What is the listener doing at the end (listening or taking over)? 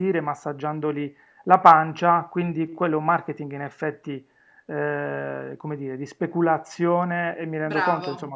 listening